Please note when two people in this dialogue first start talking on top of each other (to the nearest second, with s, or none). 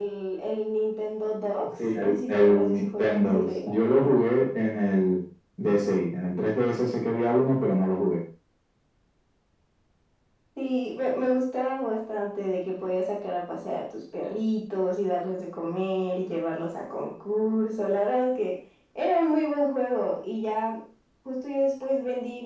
2 s